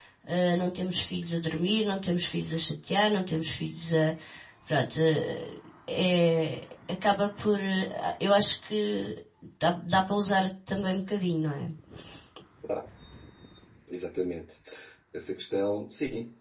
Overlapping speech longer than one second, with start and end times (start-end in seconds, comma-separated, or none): none